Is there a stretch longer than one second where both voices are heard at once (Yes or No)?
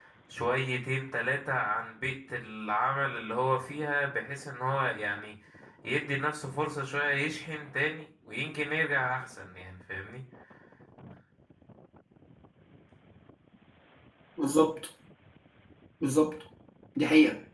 No